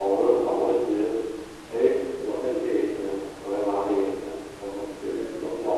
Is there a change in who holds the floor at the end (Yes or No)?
No